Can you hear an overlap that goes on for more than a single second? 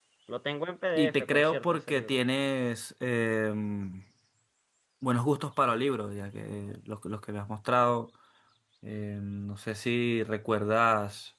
Yes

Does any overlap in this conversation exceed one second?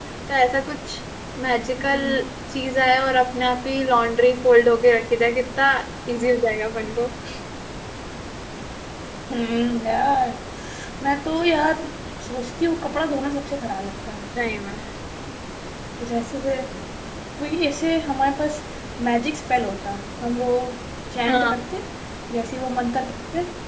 No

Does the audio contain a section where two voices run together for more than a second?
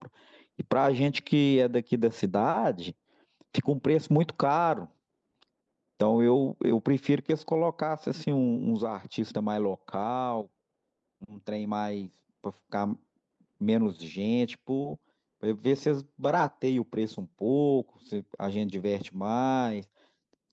No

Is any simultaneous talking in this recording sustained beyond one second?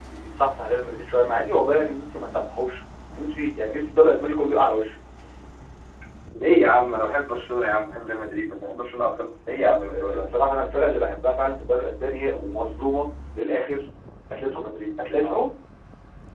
No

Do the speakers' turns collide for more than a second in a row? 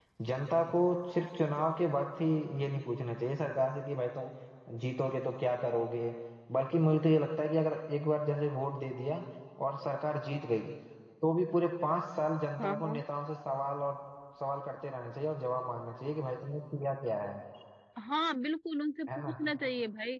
No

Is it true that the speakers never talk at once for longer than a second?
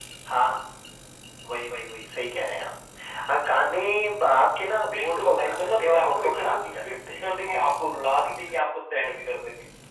No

